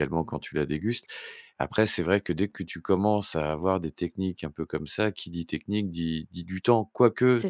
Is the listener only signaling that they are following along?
Yes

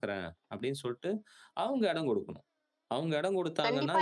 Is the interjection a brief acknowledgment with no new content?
No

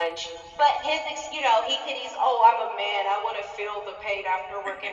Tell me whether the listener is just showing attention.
Yes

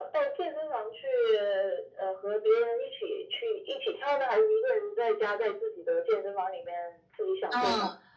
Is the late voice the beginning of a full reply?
Yes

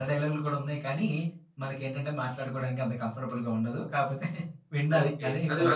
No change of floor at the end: No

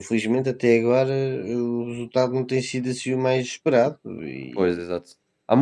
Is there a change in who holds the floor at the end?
Yes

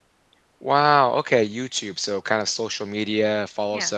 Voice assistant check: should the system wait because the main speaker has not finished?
Yes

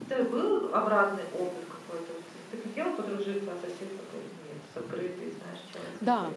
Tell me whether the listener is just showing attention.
No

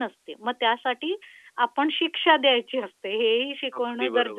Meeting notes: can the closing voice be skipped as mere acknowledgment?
No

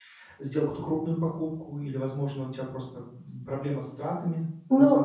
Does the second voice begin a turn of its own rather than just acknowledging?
Yes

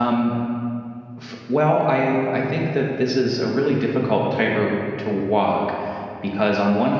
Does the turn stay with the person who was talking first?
Yes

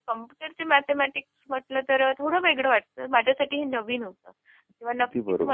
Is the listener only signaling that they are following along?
Yes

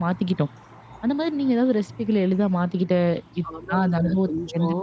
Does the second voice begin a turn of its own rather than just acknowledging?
Yes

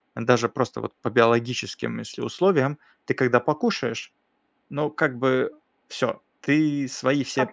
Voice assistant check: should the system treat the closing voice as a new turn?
Yes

